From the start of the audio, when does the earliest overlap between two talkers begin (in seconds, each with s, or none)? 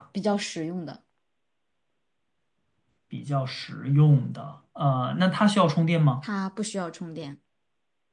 none